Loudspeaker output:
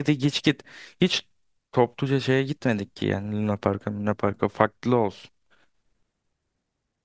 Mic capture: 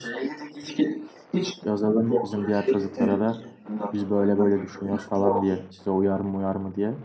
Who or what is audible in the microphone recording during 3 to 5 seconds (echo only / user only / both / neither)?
both